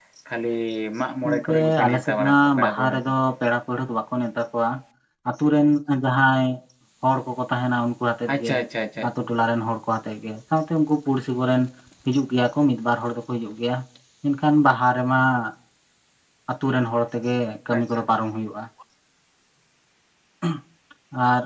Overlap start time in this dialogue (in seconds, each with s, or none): 1.2 s